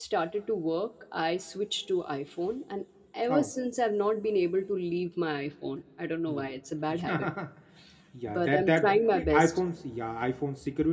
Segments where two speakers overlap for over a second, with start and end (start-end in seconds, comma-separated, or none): 8.3-9.6